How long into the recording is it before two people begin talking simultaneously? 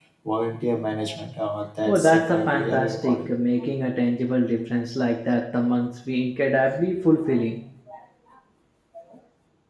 1.9 s

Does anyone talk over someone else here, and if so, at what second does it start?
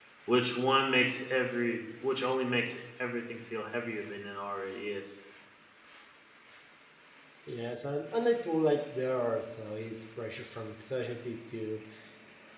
none

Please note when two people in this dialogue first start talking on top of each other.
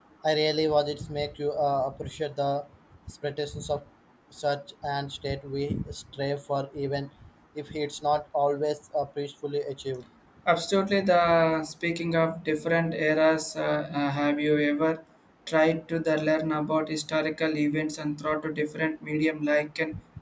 none

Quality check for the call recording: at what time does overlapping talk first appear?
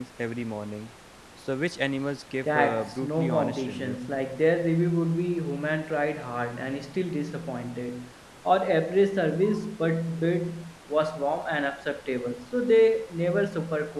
2.4 s

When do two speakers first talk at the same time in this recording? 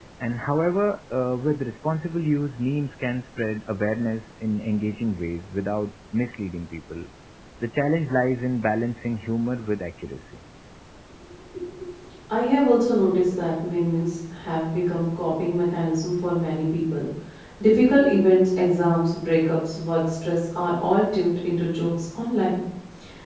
none

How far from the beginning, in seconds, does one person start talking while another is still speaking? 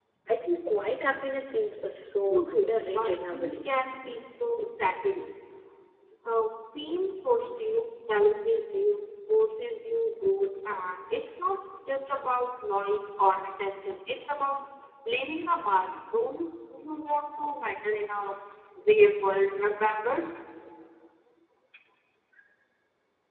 2.3 s

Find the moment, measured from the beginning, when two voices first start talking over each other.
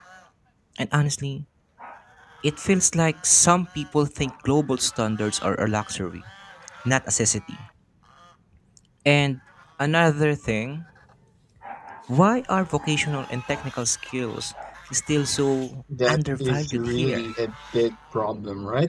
15.9 s

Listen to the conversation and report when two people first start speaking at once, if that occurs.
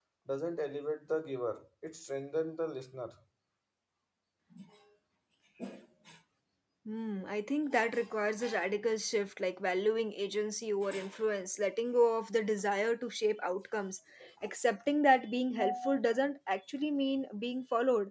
none

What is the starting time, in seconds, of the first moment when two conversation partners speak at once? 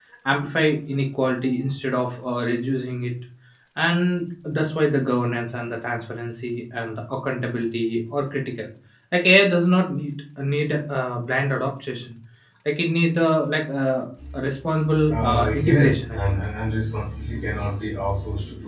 15.1 s

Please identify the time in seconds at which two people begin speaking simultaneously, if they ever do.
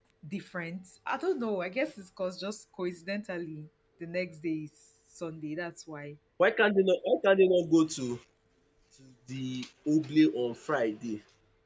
none

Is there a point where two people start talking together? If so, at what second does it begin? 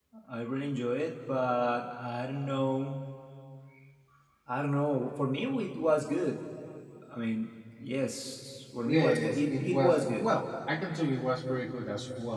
8.8 s

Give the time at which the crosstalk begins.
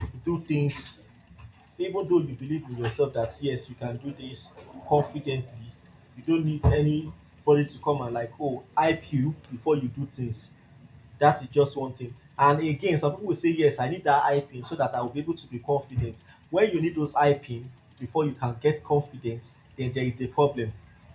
none

